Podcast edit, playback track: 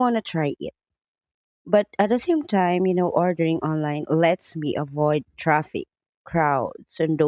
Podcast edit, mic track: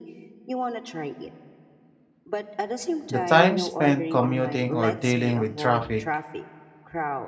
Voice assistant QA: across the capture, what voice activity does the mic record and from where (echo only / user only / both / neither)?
both